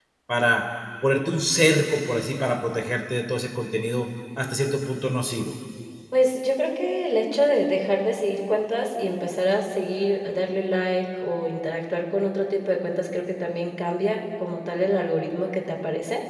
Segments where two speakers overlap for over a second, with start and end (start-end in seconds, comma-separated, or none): none